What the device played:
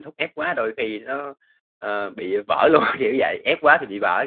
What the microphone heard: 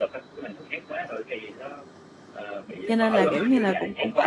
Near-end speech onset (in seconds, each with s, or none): 2.9 s